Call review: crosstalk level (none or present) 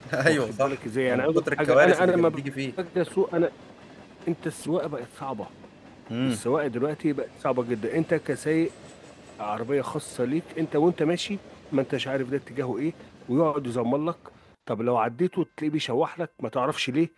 present